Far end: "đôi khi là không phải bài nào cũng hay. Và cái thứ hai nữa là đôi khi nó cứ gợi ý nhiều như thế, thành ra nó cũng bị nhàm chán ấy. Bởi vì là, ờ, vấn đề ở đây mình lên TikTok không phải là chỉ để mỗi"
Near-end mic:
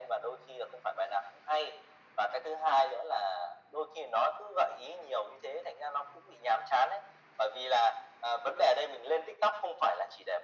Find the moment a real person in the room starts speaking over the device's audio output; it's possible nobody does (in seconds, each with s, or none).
none